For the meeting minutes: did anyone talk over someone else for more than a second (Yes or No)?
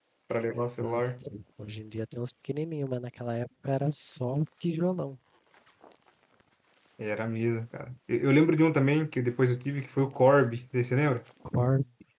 No